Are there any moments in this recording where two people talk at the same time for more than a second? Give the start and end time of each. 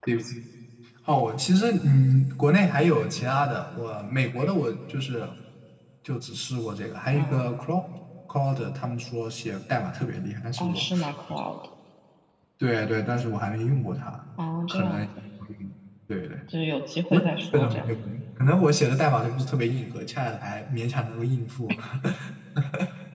none

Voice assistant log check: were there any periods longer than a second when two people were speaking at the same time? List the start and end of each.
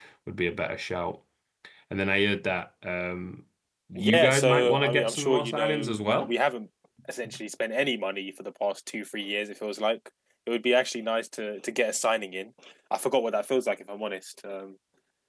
4.0-6.3

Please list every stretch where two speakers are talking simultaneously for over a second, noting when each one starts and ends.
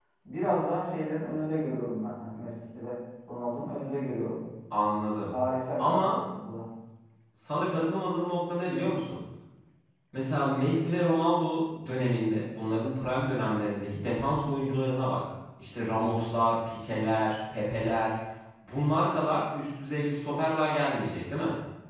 none

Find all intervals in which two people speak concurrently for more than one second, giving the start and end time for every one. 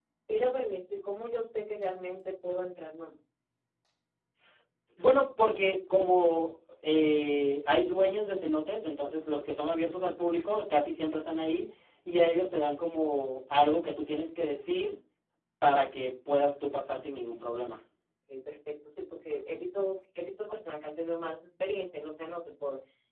none

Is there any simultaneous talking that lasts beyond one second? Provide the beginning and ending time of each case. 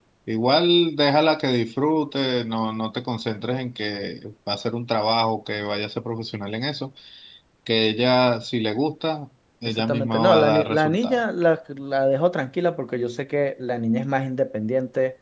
9.7-11.2

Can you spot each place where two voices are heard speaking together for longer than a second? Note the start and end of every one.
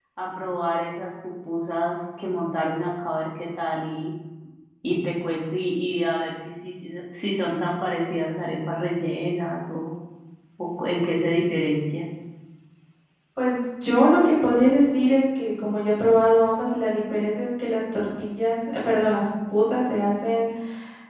none

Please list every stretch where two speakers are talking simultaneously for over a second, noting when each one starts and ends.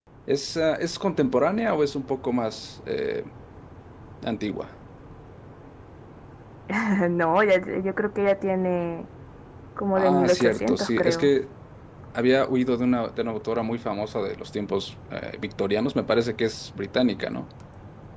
10.0-11.3

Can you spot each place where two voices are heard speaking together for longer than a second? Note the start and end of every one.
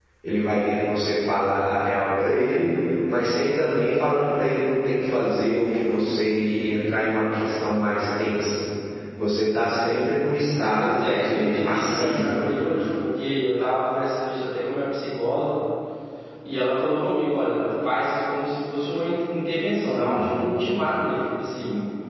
10.8-12.3

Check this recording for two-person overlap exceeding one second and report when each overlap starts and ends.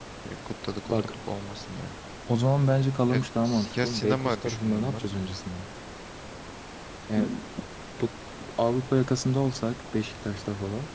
3.8-5.0

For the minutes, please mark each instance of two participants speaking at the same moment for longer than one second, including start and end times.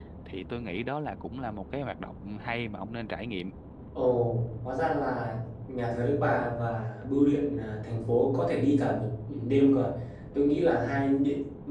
none

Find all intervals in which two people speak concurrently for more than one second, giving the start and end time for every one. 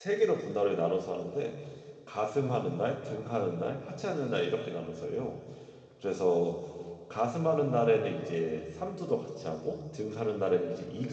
none

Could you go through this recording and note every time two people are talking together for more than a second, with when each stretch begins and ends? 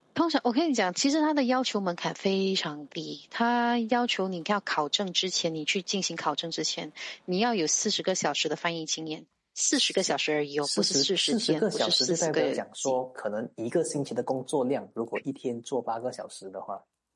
10.6-12.9

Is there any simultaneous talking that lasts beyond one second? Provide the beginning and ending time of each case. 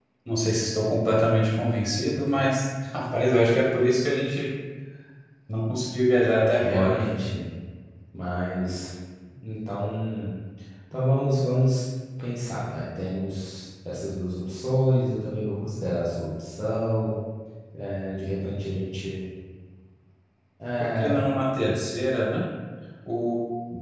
none

